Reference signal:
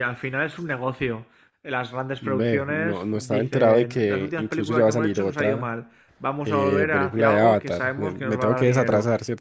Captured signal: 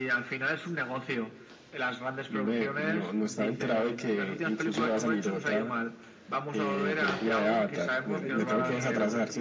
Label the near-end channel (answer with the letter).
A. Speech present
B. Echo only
A